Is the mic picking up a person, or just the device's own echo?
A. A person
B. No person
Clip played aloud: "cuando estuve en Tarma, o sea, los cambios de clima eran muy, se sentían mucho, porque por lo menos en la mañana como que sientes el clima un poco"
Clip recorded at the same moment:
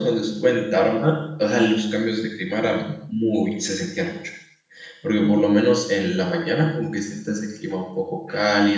B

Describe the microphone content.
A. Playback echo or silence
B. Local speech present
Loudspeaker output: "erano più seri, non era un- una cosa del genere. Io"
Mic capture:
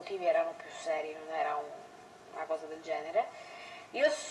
A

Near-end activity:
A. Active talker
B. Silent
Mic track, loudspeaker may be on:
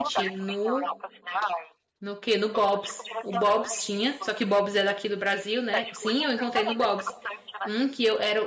A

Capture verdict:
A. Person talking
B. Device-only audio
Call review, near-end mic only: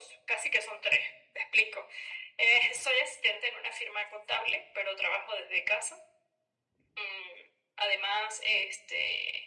B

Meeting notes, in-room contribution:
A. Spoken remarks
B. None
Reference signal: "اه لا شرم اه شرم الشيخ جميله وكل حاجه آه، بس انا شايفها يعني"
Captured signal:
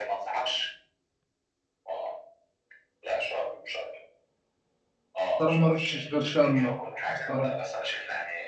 A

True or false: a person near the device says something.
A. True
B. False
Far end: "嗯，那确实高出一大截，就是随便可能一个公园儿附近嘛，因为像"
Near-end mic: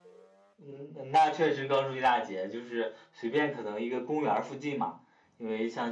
B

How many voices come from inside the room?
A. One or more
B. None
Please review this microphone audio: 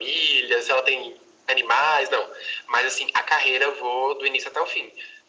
B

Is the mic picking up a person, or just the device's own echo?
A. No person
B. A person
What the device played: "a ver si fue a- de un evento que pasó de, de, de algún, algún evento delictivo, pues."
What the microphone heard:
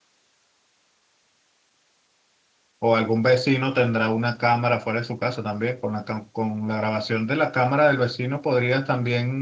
B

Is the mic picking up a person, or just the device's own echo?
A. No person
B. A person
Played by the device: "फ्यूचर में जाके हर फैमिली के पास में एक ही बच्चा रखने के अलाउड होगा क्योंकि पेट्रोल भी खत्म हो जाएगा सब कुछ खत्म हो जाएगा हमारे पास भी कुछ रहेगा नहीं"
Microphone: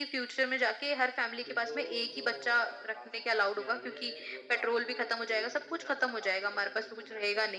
B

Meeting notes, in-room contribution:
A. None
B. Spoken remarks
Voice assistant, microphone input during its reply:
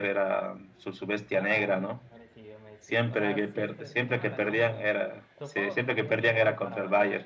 B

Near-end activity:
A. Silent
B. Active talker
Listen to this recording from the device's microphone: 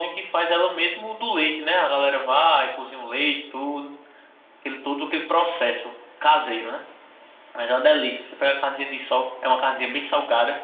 A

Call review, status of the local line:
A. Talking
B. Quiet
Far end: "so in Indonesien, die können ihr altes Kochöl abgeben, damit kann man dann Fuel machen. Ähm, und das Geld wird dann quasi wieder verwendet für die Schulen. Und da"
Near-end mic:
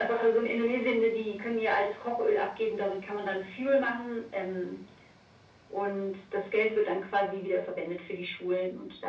B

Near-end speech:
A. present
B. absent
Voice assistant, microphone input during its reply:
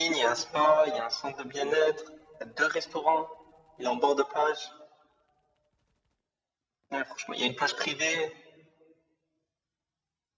B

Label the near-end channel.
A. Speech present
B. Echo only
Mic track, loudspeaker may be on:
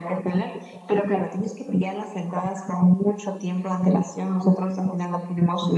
B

